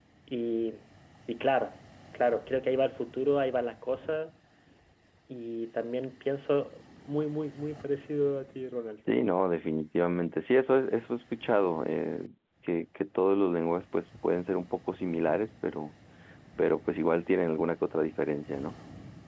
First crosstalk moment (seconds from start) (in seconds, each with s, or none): none